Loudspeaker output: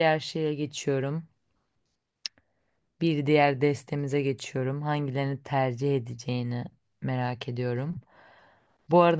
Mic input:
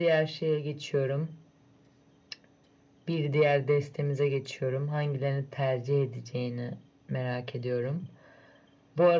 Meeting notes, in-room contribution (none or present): none